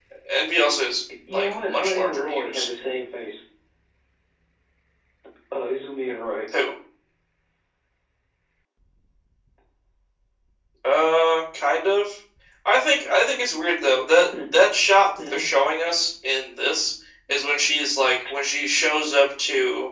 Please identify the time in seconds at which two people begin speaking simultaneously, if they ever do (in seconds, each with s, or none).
1.3 s